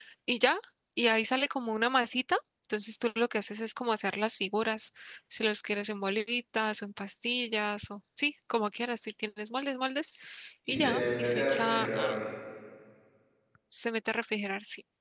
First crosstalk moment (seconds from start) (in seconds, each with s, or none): 10.7 s